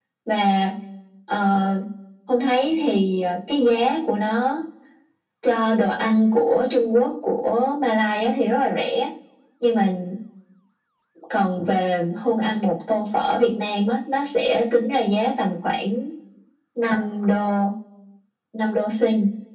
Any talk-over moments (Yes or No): No